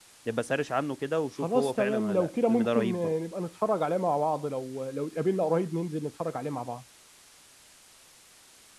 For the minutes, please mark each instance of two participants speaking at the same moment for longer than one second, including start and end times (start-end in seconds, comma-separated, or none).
1.4-3.1